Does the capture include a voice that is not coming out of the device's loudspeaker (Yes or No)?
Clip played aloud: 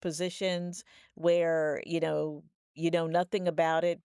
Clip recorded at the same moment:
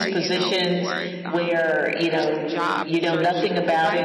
Yes